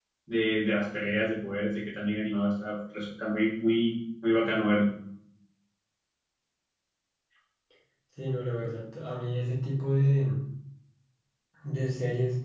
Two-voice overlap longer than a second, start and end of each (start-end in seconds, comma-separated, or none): none